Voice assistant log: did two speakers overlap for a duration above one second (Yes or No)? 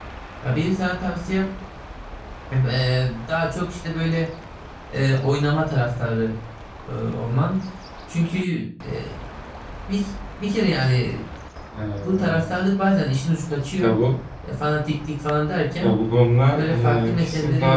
Yes